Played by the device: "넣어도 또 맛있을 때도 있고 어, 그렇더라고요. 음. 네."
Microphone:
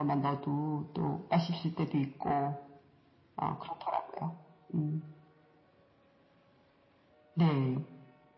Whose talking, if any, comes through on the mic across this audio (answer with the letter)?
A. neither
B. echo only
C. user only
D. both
B